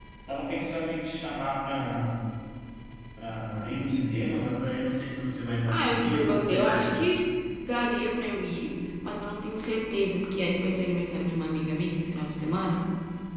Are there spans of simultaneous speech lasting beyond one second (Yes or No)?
Yes